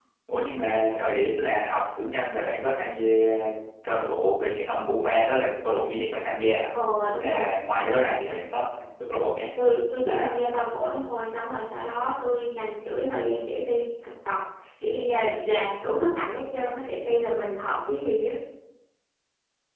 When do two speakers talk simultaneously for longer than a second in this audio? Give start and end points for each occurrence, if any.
none

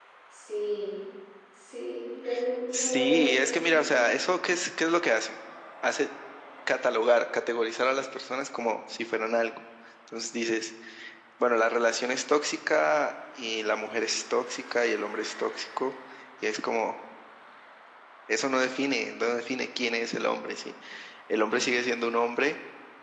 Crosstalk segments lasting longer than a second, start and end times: 2.7-4.0

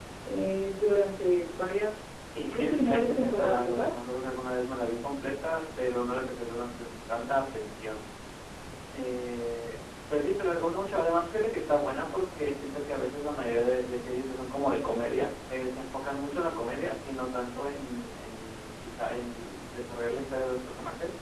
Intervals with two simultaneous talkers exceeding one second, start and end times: 2.5-3.9

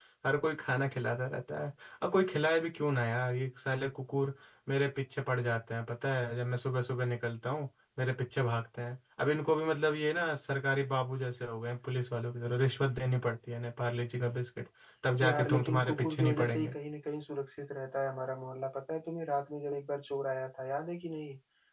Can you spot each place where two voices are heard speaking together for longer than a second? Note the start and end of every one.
15.2-16.7

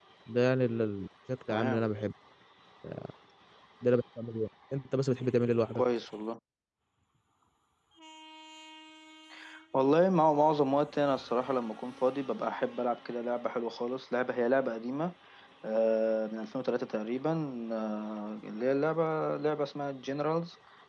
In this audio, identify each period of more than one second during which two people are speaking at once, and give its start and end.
none

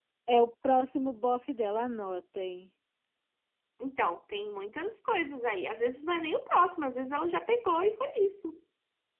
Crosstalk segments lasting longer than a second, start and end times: none

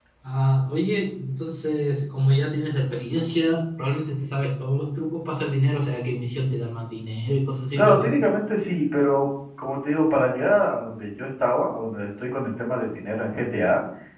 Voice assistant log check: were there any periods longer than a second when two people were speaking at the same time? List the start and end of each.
none

